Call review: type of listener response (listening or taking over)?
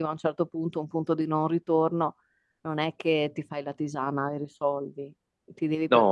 listening